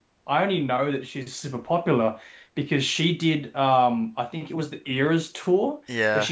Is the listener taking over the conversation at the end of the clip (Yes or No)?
No